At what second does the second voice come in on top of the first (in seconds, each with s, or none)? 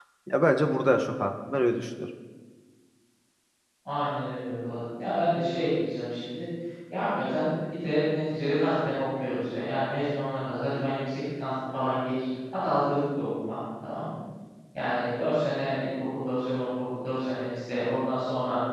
none